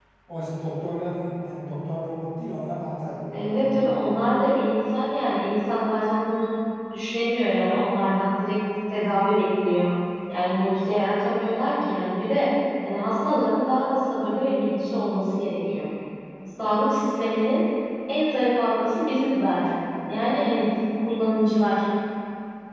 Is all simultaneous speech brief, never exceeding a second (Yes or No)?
Yes